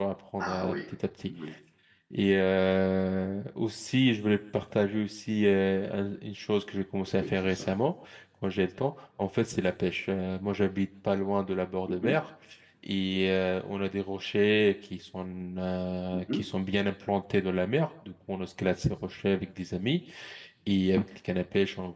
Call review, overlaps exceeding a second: none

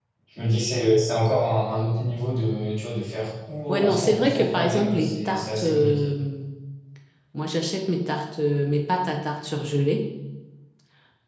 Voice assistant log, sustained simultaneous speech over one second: present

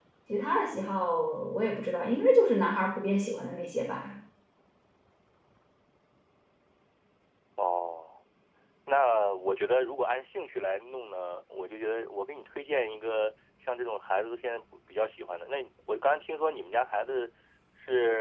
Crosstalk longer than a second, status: none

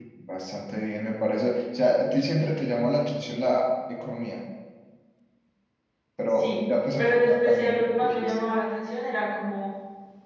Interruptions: present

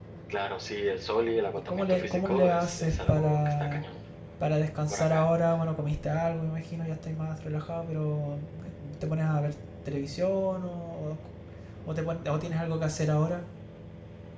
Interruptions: present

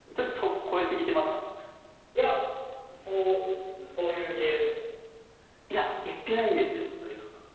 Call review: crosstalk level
none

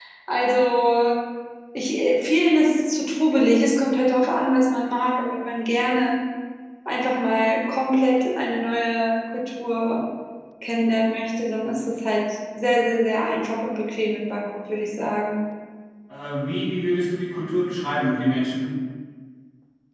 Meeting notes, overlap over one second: none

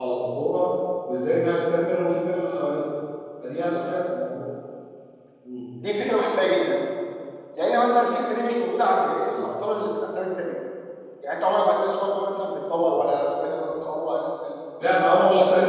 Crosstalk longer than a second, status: none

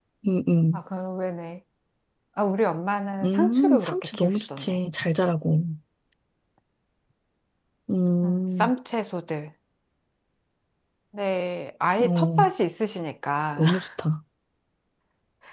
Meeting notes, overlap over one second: present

